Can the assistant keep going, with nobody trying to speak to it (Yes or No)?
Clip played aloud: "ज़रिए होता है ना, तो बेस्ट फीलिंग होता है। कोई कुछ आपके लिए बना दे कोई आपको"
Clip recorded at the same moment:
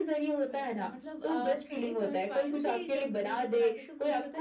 No